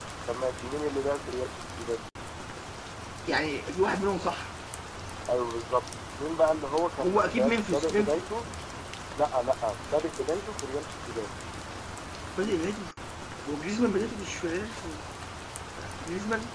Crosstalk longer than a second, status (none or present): present